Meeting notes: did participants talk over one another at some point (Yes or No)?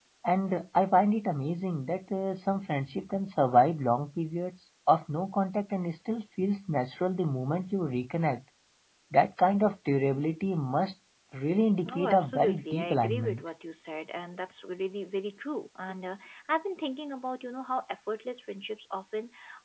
Yes